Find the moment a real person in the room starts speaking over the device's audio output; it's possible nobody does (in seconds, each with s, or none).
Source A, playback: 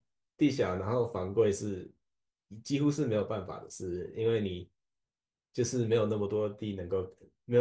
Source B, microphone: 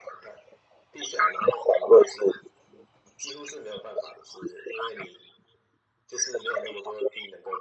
none